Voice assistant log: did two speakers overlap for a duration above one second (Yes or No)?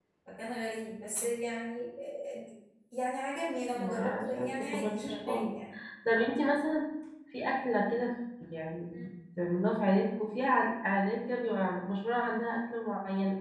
Yes